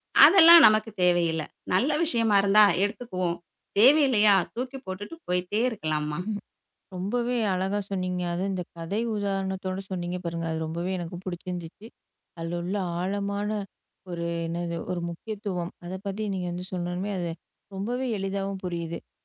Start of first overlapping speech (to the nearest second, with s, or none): none